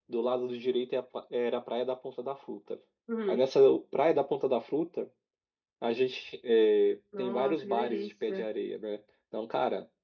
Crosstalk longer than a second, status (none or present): present